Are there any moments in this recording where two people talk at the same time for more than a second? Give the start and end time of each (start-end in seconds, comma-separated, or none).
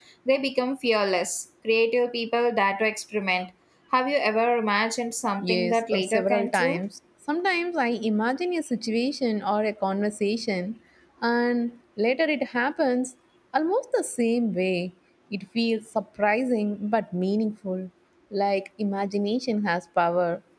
5.5-6.8